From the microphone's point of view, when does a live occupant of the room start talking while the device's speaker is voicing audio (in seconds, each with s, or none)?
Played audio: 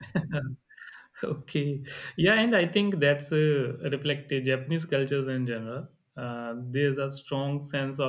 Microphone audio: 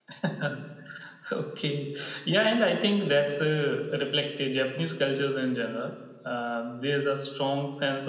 none